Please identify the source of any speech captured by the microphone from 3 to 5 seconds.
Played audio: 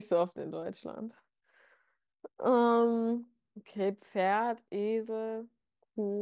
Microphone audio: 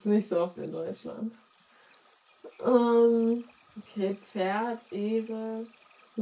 echo only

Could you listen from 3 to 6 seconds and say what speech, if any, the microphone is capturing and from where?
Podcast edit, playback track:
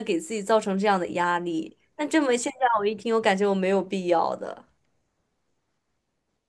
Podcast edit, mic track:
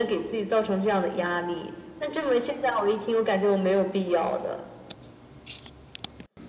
echo only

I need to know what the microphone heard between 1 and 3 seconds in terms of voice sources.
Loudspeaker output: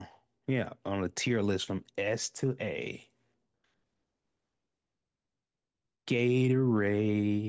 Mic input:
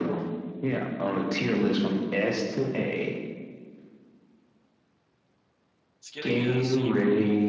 echo only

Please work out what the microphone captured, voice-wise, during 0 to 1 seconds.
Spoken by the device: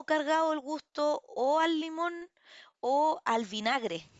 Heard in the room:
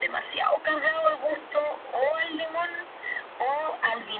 echo only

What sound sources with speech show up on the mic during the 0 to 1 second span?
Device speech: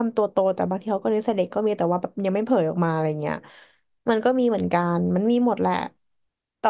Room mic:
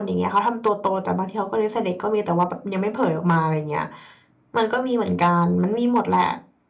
echo only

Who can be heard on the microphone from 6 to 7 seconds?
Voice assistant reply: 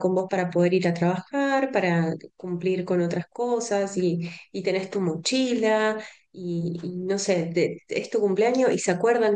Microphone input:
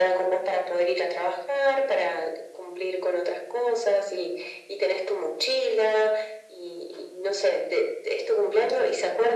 echo only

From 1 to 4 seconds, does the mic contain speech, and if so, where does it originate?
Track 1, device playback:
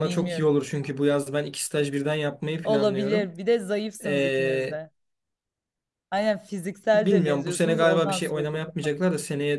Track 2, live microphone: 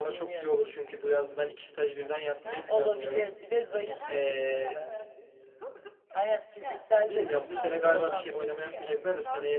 both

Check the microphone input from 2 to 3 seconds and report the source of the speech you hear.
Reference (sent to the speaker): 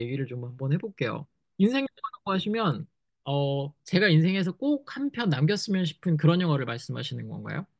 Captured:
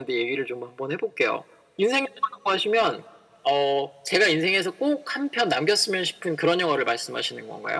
echo only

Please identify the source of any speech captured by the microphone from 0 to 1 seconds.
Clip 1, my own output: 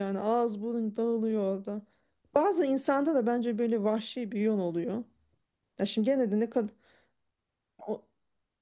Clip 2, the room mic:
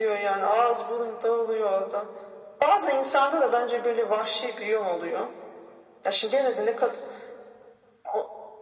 echo only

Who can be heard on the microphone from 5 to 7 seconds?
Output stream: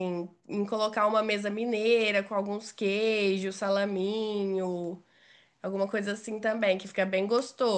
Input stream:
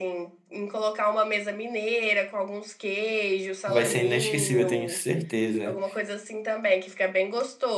both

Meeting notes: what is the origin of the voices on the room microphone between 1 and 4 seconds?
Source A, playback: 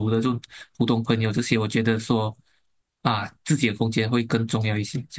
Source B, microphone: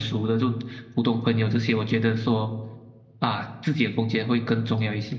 echo only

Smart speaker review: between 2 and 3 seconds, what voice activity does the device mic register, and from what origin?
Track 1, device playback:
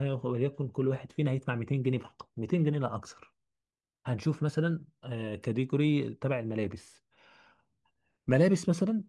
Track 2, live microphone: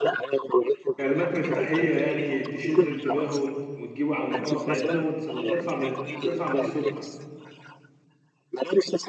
both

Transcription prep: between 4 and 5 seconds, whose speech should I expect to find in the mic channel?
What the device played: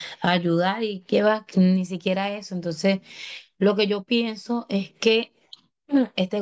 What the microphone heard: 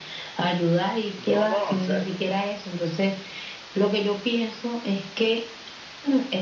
echo only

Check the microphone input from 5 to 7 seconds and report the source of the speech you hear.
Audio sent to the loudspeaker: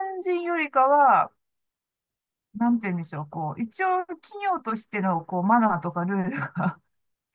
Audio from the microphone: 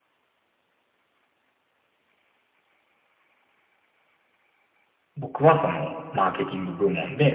user only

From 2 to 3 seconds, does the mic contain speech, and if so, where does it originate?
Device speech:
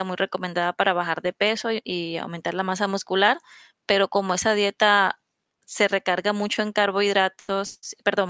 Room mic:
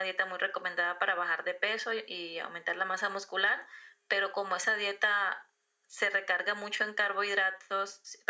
echo only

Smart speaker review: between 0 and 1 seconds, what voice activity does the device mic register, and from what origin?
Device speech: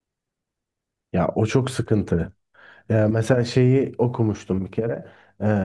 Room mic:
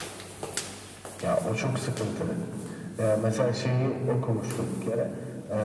neither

